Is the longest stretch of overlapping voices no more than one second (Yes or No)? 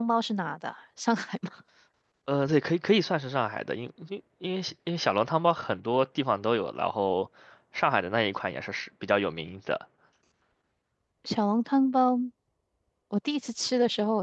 Yes